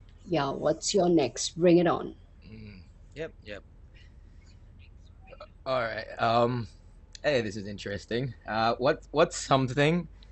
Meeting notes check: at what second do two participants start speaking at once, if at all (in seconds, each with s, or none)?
none